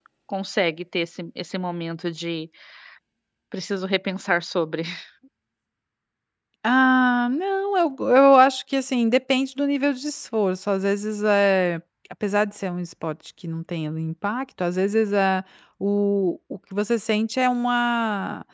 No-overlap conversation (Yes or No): Yes